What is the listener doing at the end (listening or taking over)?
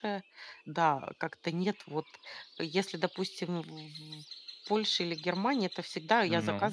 listening